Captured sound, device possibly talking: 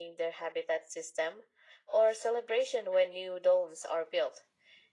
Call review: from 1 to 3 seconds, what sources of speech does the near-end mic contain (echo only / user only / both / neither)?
echo only